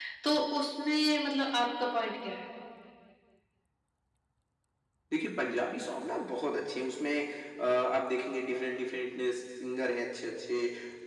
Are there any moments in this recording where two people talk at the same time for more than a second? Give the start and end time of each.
none

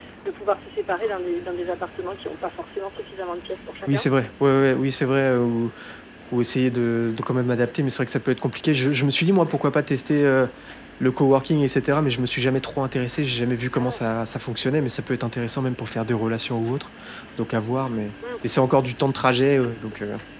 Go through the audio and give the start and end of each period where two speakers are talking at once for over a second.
none

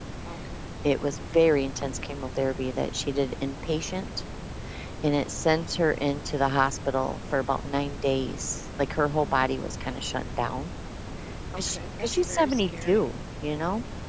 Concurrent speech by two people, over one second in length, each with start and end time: 11.6-13.1

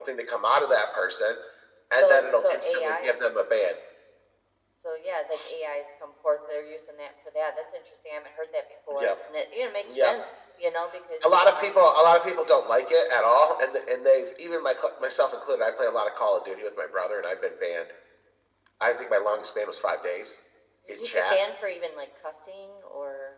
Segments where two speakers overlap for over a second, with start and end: 1.9-3.4

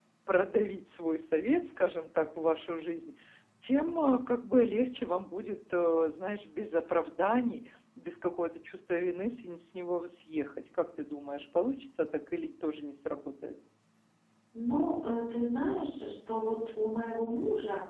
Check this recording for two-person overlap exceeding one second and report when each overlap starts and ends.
none

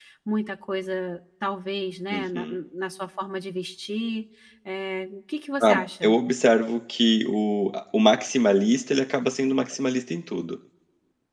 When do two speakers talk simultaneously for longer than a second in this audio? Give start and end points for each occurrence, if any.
none

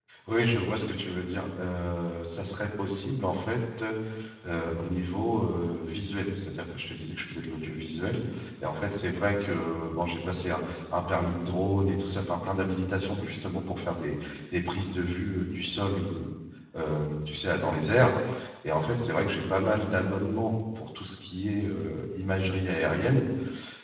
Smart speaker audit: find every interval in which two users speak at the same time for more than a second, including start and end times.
none

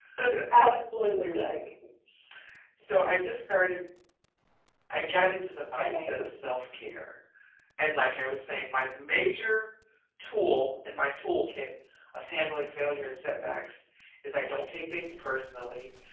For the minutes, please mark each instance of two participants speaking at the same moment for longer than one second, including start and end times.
none

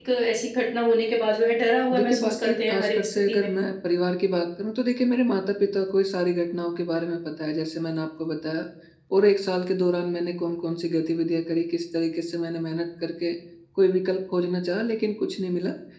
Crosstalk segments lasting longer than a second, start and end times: 1.9-3.5

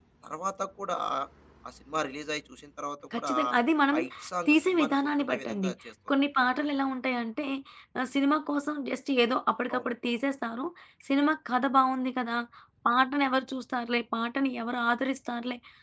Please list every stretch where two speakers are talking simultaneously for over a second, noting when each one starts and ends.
4.5-5.7

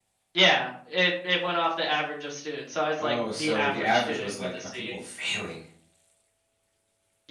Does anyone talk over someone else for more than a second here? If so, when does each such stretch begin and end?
3.0-4.9

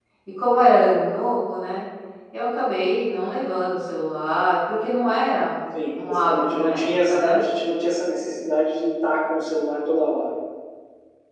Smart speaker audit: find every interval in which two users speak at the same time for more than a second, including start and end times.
6.1-7.4

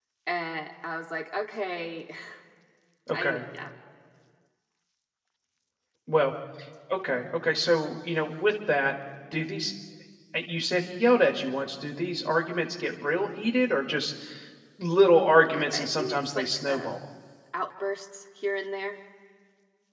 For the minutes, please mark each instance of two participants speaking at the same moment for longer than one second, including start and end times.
15.3-17.0

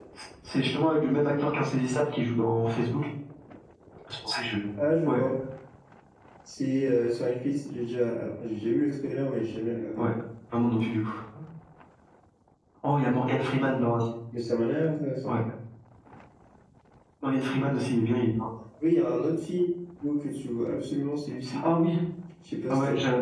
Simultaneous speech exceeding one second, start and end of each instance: none

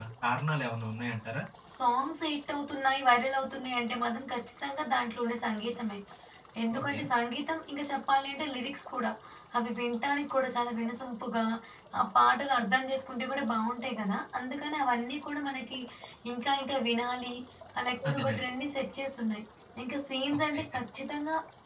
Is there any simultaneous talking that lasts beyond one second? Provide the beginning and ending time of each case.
none

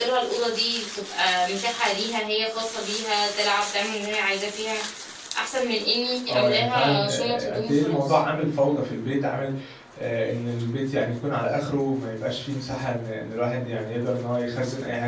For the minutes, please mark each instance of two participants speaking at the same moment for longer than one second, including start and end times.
6.3-8.2

